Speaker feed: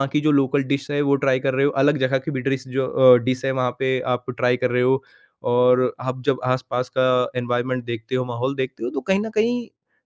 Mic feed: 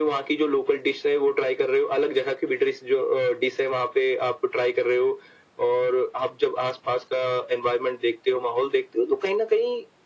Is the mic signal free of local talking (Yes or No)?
Yes